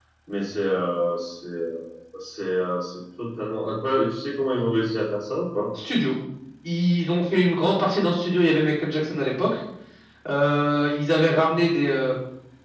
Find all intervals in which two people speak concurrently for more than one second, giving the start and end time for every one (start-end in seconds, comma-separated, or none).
none